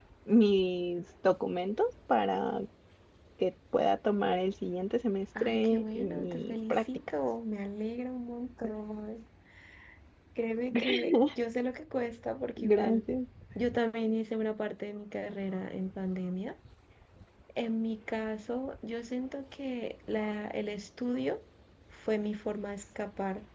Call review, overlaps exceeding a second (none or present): present